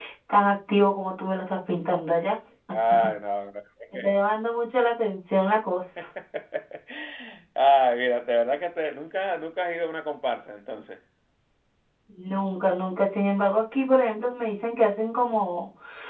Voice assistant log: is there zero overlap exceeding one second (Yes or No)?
Yes